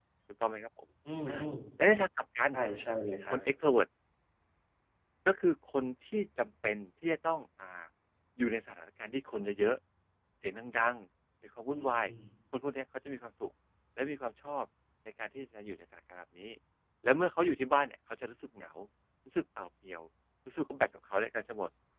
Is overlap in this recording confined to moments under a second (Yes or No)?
Yes